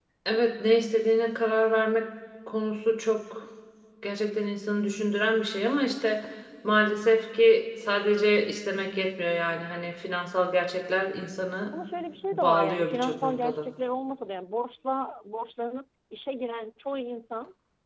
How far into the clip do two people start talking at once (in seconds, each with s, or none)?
12.3 s